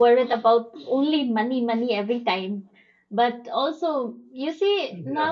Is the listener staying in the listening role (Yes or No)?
Yes